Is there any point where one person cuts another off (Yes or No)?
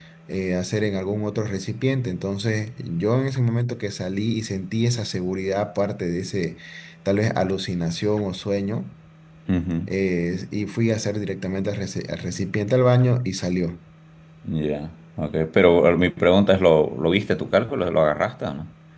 No